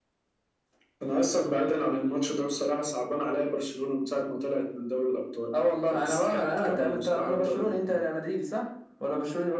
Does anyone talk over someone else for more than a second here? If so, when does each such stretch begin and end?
5.5-8.0

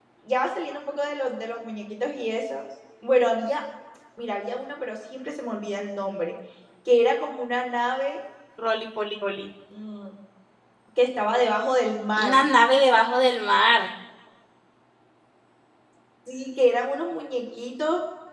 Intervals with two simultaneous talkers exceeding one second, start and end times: none

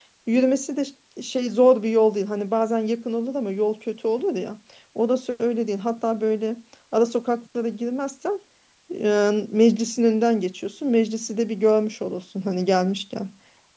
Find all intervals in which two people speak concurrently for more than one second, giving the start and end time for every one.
none

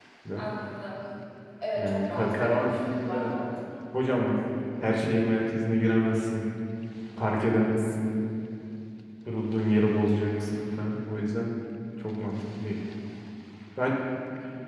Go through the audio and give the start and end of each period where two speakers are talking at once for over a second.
1.7-3.3

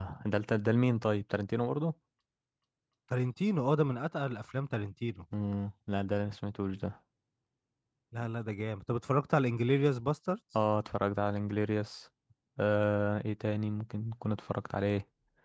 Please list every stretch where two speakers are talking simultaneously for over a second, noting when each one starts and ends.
none

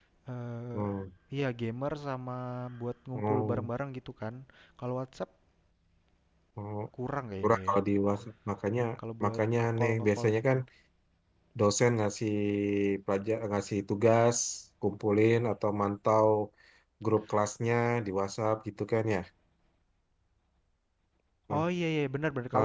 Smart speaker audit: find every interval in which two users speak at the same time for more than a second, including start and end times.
9.2-10.6

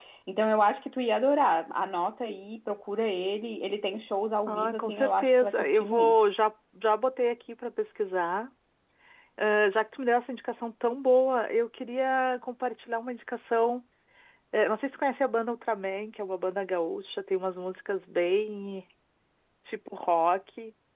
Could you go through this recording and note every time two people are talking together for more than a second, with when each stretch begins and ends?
4.5-6.2

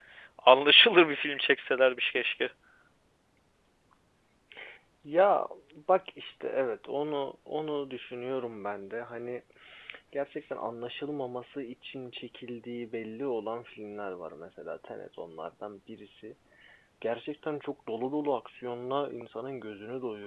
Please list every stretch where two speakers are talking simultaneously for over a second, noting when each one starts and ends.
none

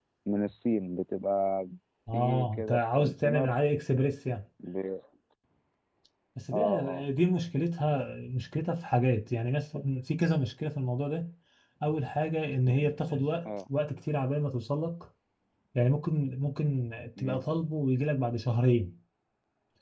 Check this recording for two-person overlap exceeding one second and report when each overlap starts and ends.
2.1-3.5

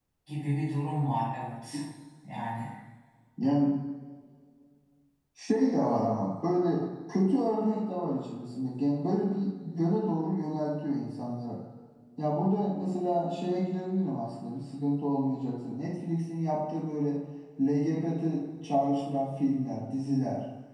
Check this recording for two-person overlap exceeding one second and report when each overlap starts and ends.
none

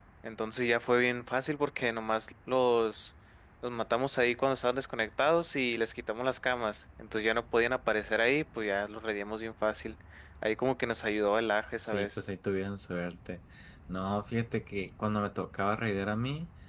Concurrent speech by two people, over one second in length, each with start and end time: none

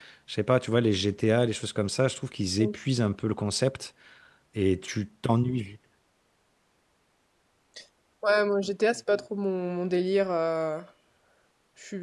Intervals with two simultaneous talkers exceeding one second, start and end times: none

